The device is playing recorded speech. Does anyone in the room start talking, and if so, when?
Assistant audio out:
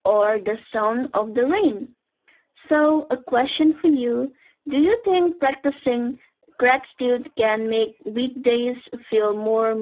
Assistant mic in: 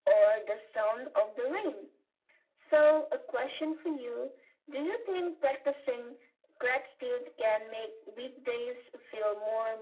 none

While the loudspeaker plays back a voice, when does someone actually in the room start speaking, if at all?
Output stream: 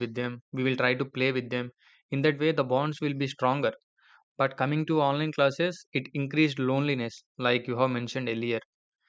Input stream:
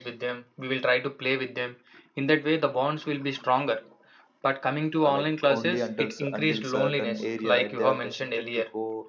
5.0 s

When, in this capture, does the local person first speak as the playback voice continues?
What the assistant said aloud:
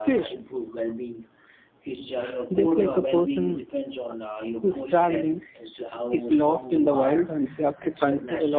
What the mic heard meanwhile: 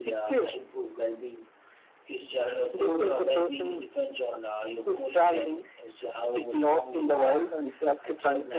none

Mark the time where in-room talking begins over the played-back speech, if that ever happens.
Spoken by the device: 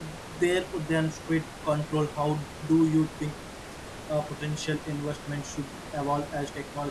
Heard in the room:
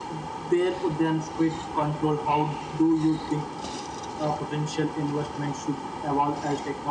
none

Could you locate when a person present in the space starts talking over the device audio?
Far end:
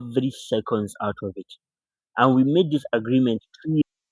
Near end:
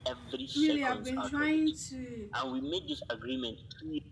0.6 s

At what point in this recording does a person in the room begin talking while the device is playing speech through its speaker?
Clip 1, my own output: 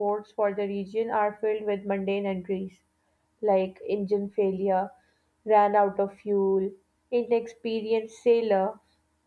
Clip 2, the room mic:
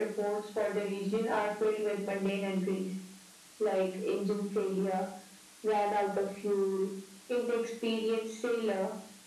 none

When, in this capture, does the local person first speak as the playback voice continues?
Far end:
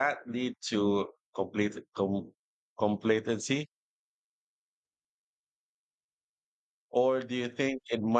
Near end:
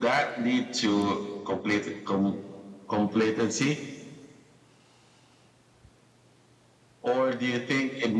none

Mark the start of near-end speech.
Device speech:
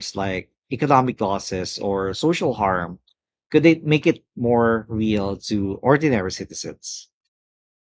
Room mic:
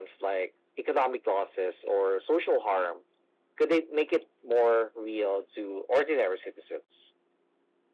none

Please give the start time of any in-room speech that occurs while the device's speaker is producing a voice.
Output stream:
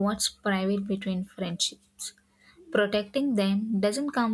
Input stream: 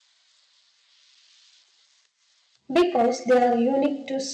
2.7 s

